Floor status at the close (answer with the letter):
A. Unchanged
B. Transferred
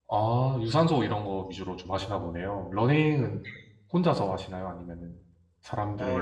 B